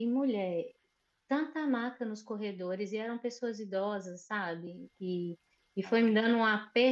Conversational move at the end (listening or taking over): listening